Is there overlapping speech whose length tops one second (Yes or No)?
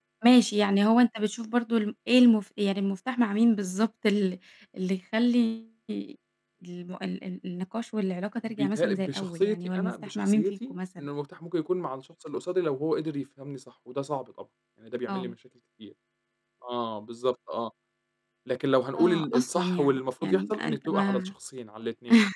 Yes